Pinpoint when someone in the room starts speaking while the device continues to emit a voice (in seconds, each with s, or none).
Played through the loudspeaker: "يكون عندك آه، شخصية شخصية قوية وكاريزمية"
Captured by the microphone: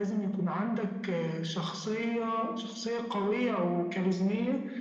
none